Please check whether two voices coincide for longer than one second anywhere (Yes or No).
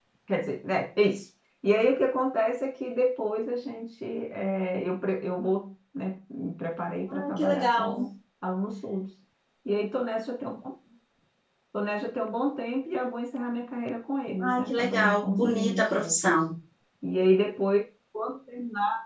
Yes